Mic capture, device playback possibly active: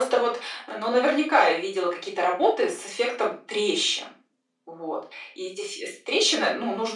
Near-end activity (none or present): none